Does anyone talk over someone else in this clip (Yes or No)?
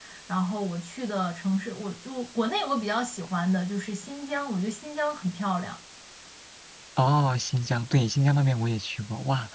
No